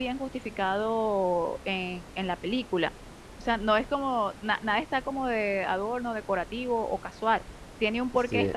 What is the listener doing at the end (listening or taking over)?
listening